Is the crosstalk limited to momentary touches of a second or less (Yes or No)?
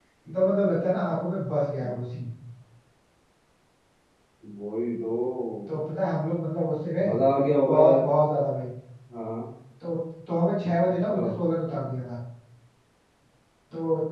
Yes